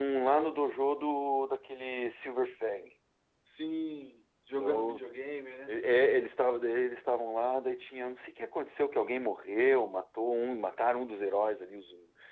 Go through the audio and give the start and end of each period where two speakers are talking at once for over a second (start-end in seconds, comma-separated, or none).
none